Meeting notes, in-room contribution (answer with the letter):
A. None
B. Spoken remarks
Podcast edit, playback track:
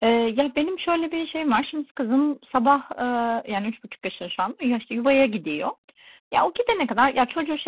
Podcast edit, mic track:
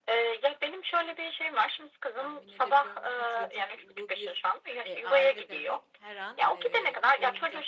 B